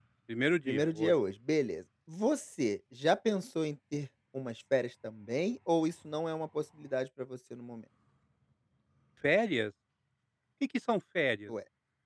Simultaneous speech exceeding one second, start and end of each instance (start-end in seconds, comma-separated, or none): none